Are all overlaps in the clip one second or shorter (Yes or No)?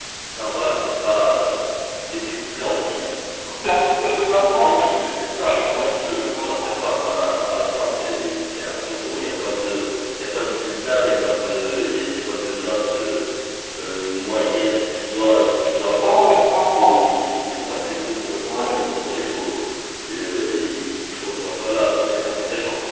No